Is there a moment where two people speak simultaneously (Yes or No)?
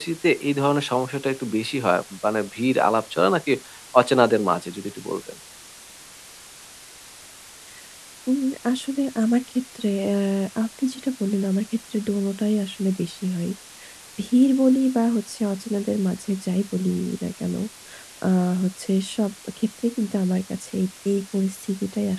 No